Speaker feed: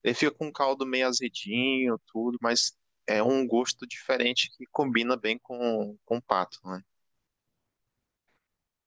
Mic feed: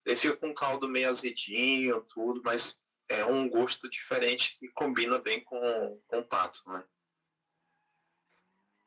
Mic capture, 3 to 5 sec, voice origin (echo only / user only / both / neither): echo only